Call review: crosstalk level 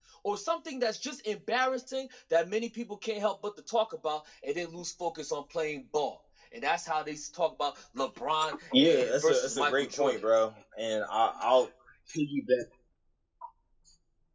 present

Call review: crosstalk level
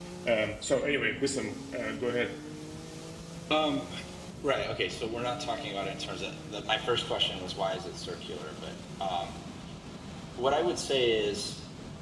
none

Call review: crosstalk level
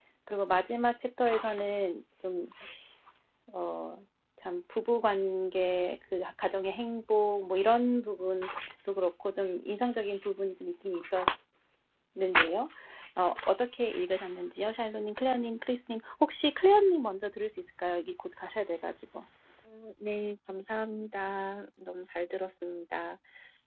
none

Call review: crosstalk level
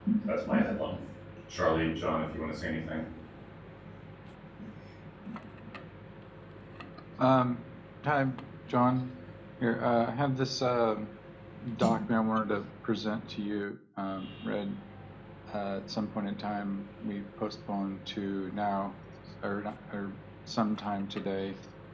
none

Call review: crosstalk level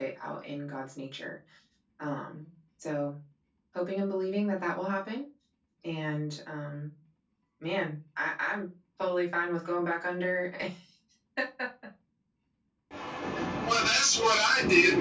none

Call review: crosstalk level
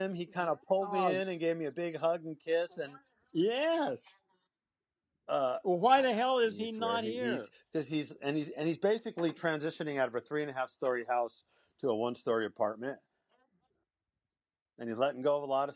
present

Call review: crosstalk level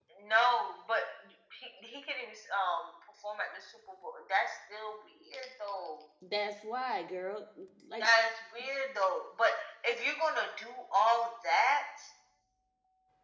none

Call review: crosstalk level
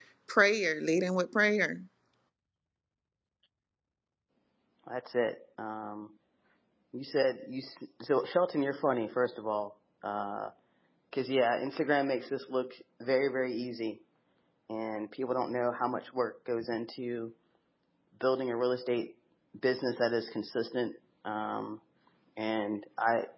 none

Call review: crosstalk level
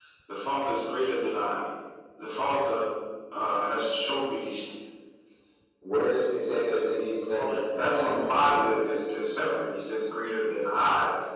present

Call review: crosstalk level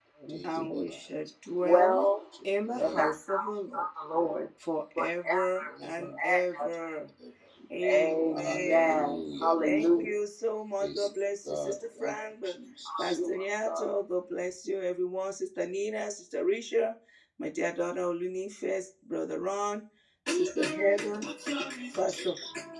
present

